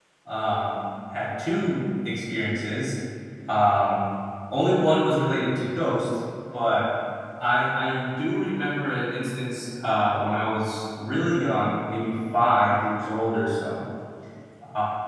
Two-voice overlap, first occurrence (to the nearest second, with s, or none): none